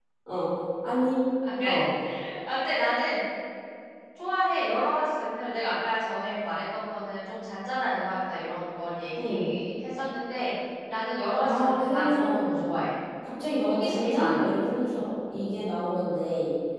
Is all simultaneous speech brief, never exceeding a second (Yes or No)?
No